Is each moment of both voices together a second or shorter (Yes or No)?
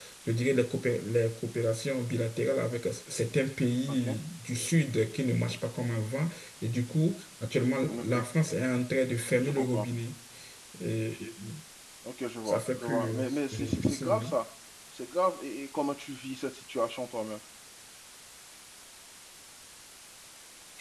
No